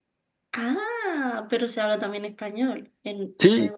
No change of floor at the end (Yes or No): No